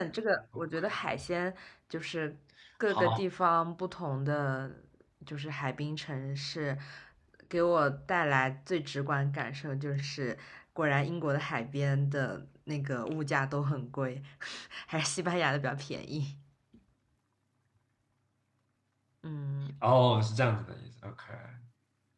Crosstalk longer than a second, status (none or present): none